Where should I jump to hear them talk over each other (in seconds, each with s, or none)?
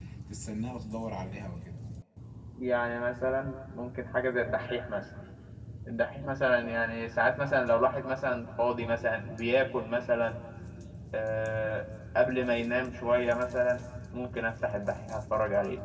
none